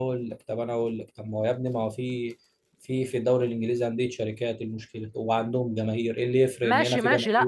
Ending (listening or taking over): taking over